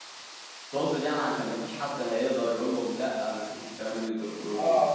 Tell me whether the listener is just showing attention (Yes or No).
No